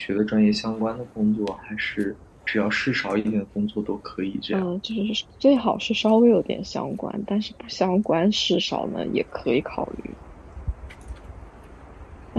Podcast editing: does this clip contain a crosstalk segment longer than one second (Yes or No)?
No